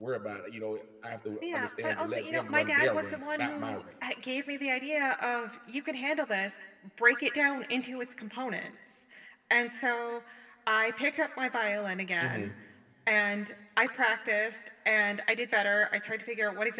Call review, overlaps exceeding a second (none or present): present